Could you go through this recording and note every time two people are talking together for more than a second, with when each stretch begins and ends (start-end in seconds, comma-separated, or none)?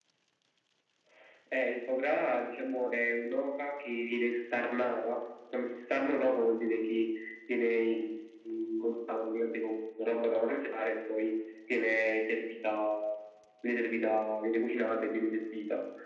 none